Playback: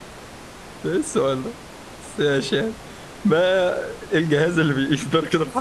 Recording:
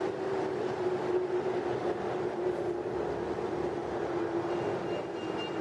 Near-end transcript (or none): none